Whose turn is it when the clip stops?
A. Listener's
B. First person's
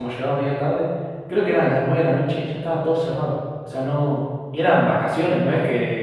B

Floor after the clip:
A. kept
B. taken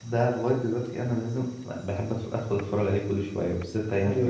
B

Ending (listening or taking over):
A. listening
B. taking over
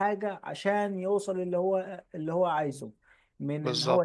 A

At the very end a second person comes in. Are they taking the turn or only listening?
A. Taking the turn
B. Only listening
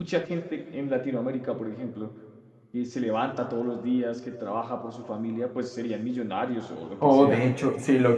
A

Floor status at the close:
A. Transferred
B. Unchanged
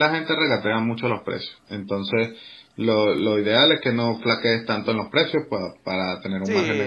A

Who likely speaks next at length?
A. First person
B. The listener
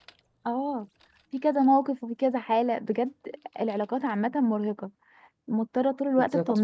A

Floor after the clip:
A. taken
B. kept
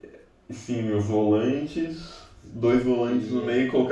B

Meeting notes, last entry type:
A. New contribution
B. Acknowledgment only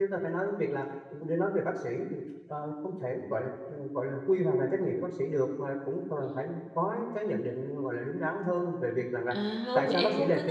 A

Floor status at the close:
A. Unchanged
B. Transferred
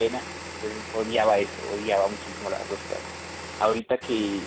A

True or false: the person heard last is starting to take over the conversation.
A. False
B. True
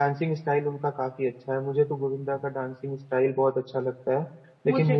A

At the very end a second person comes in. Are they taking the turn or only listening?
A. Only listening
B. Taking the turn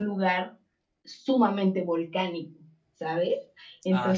B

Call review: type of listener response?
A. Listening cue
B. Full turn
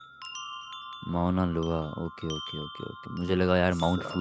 A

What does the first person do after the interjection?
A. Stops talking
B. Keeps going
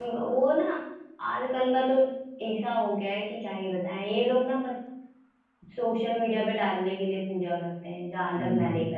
A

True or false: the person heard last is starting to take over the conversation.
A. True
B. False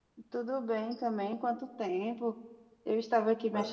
B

